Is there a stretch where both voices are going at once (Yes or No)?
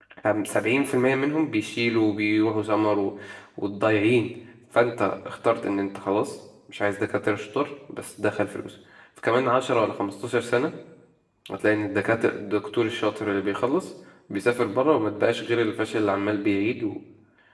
No